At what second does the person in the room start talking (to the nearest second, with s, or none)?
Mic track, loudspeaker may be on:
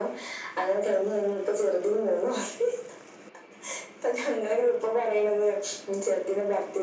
none